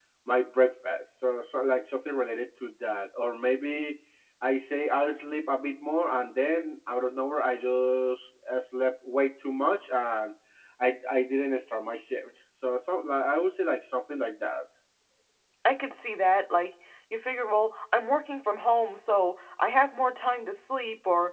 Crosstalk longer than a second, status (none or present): none